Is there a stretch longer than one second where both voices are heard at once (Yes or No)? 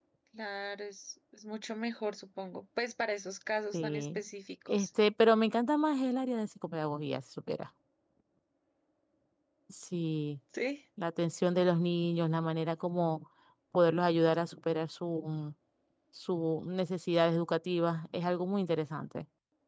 No